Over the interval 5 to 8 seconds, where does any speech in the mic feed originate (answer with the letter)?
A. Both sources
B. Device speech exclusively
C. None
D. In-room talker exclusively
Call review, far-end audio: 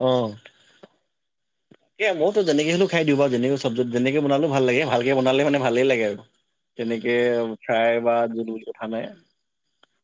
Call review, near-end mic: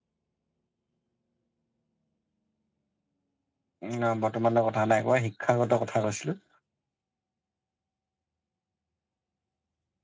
D